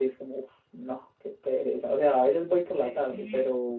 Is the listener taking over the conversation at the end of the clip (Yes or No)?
Yes